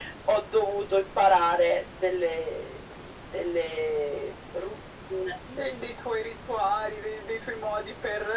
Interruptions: none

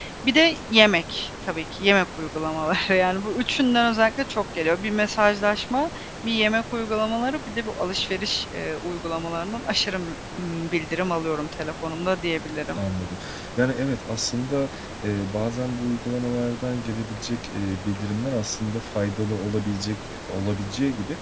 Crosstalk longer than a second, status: none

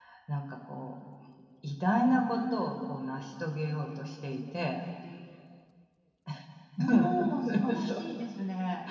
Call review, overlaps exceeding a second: none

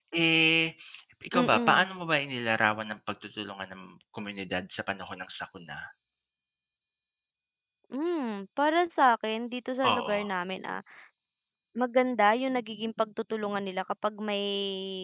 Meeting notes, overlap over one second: none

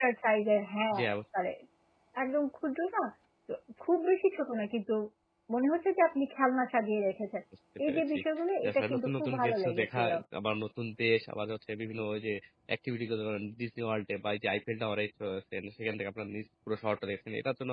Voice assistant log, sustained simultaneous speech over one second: present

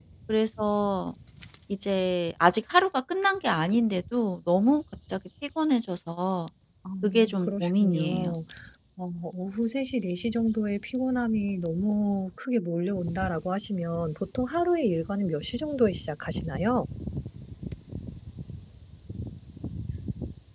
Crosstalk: present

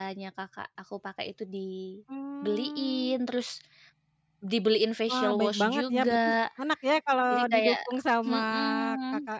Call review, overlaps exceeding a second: present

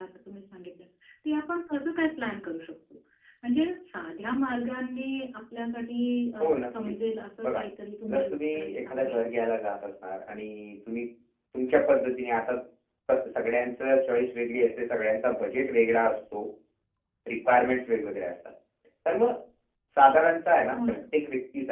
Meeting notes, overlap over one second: present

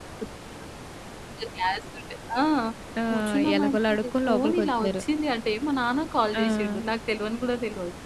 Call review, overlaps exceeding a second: present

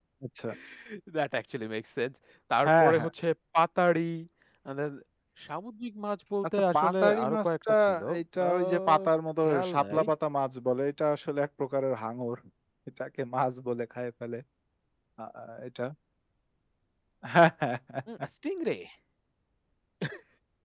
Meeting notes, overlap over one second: present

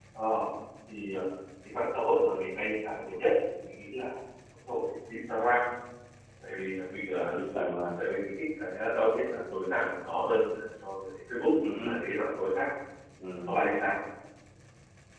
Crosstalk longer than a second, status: none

